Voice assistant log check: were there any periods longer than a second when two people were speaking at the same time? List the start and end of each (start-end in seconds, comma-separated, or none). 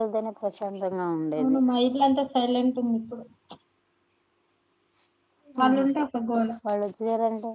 none